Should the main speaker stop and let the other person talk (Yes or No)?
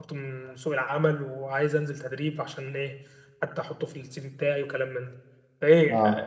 No